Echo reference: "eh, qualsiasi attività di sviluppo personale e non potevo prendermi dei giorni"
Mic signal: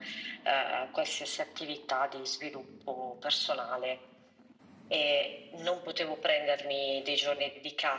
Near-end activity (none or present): none